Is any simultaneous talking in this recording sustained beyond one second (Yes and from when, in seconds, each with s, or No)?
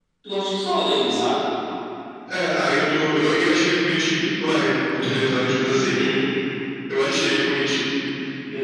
No